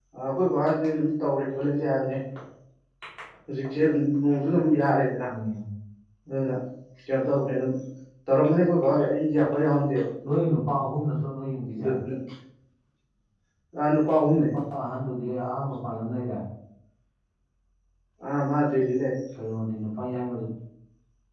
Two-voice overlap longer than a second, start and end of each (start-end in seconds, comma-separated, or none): none